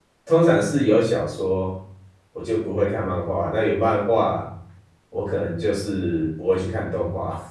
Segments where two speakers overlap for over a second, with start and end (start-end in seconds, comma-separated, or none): none